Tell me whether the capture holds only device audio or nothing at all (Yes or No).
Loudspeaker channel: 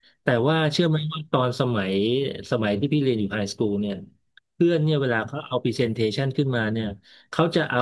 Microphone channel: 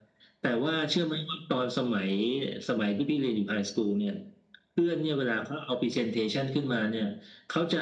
Yes